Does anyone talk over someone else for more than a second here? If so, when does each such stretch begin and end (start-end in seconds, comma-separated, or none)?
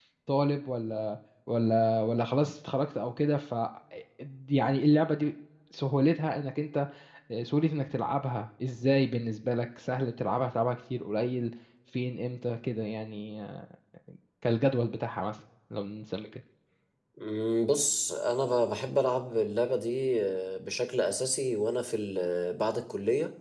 none